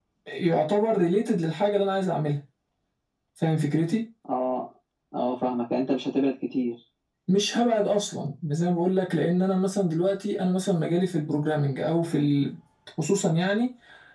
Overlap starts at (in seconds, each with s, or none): none